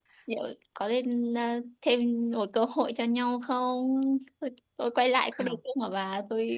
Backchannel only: Yes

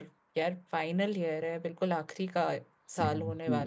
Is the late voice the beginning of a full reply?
Yes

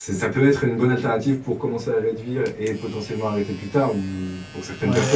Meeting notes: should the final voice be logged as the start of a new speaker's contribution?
No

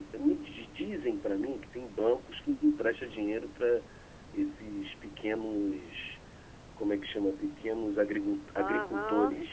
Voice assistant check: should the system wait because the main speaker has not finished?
No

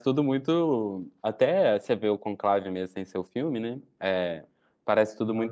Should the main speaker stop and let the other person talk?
No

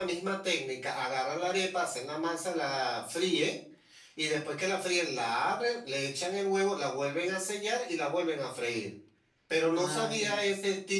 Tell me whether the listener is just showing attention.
Yes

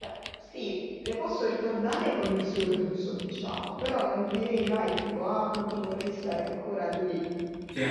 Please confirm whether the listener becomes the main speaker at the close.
Yes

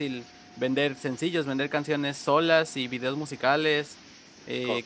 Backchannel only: Yes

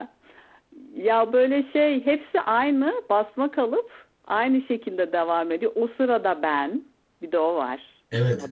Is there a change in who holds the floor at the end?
Yes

